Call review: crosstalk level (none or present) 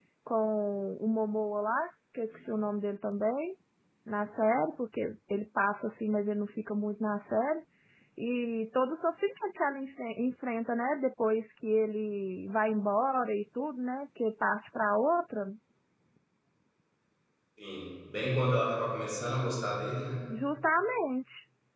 none